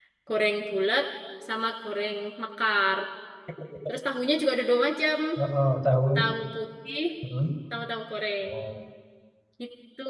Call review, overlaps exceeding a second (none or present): none